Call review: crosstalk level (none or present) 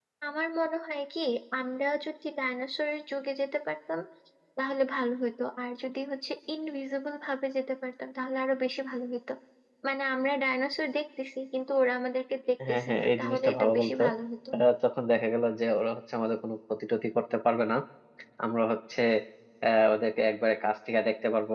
present